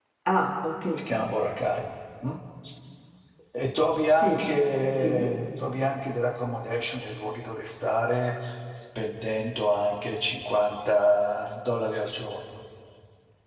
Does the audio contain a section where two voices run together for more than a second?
No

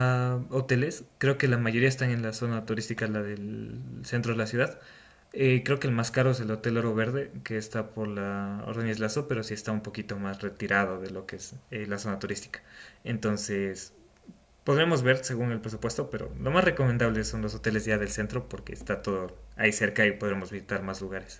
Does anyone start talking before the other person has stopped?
No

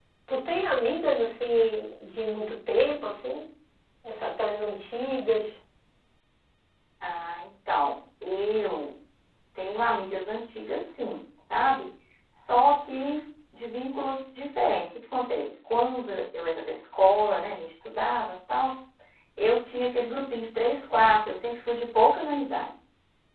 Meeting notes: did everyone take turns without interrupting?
Yes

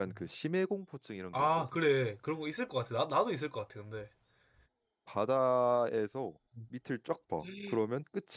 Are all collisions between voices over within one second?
Yes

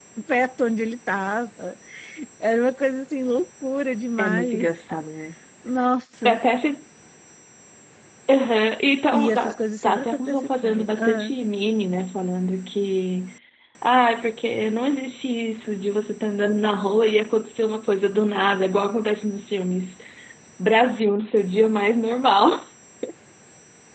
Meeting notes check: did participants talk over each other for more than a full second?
Yes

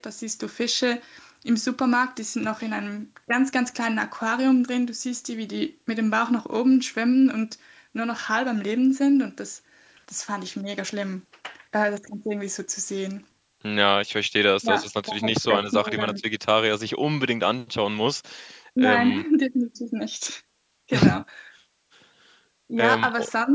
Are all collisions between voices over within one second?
No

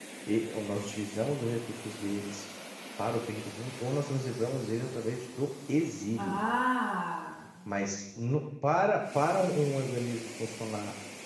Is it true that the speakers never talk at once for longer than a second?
Yes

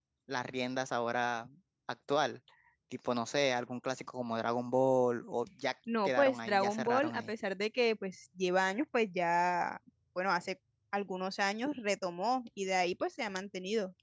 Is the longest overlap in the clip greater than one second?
Yes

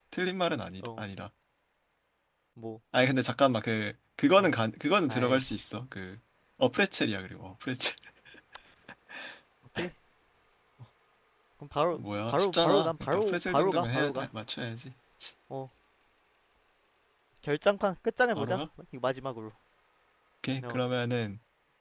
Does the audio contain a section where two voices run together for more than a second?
Yes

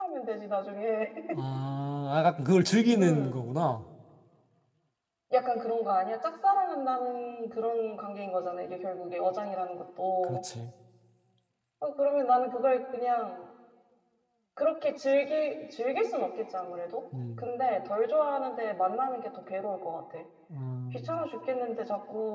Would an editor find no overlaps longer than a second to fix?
Yes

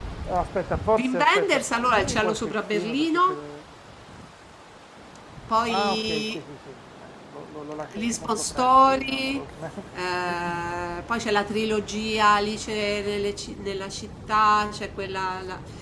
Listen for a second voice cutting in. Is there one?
Yes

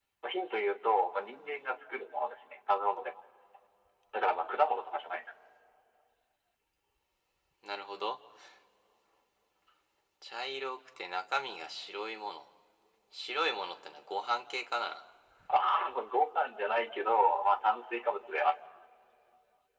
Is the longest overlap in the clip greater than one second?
No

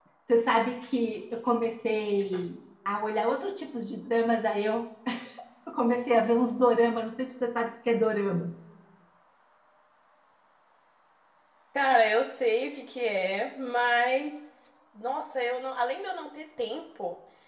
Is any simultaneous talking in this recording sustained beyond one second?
No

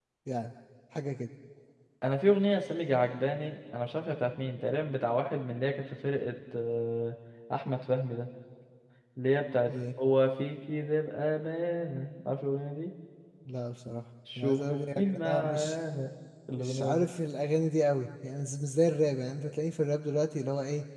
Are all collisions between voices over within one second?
No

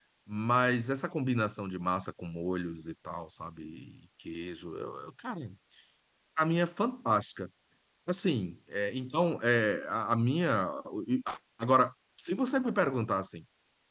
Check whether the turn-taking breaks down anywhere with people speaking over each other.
No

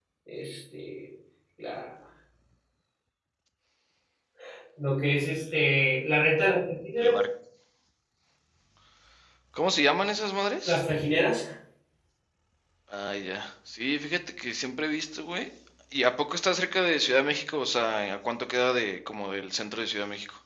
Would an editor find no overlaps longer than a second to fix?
Yes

